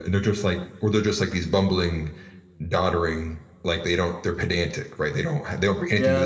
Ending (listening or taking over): taking over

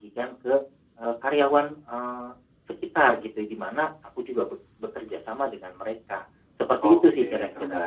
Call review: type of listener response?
taking over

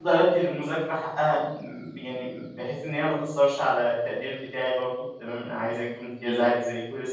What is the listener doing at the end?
listening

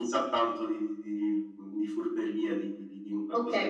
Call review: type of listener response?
taking over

